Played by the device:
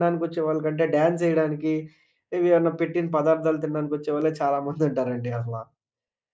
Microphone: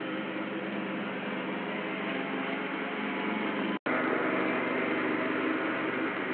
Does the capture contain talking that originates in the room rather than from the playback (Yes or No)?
No